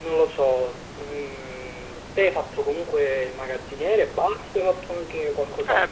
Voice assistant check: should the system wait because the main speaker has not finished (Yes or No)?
No